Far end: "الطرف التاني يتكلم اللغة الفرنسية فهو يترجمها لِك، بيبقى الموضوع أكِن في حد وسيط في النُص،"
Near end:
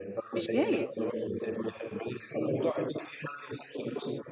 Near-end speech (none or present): present